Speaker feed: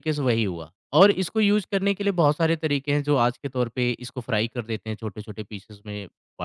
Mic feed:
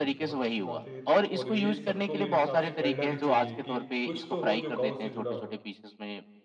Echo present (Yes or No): Yes